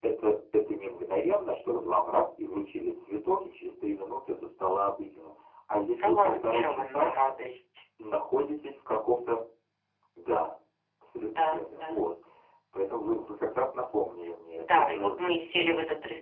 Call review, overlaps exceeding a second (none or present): present